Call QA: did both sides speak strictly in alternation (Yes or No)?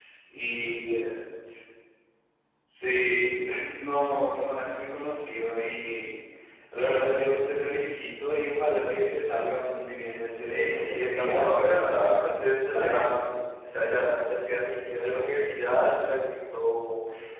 No